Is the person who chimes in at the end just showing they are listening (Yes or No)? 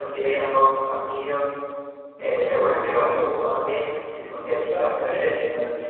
No